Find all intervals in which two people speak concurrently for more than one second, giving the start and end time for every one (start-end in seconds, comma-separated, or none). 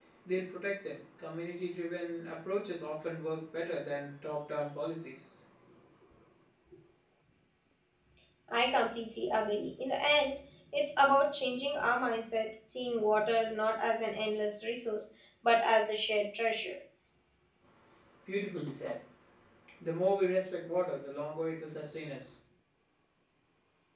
none